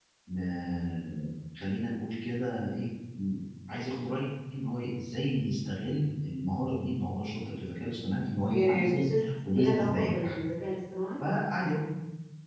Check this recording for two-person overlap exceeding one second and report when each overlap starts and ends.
8.5-10.3

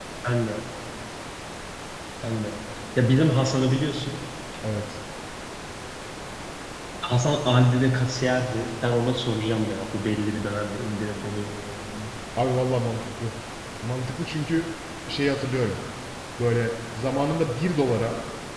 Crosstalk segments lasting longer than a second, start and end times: none

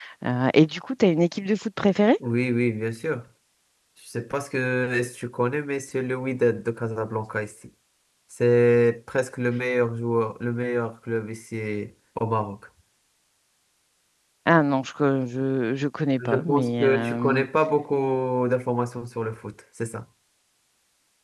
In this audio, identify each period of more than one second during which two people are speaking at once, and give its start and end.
16.2-17.4

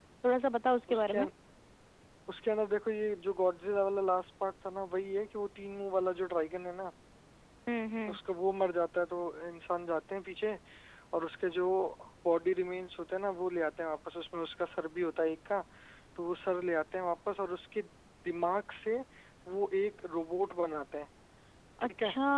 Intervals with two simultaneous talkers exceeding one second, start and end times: none

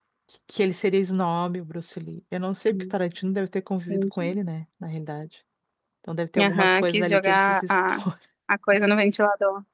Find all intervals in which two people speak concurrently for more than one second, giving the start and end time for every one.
6.4-8.0

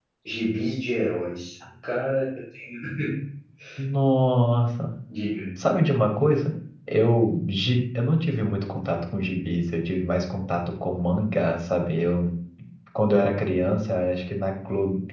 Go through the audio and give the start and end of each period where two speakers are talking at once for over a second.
none

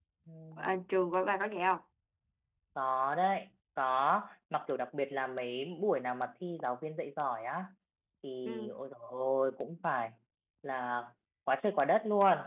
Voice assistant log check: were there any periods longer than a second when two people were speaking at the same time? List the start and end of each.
none

